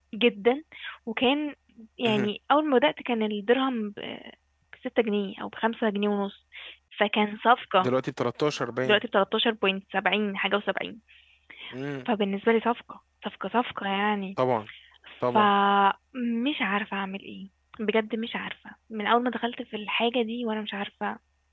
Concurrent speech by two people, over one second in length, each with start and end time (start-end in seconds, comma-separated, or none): none